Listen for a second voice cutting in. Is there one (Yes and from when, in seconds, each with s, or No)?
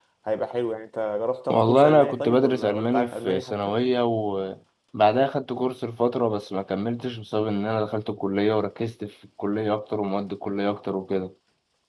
Yes, from 1.5 s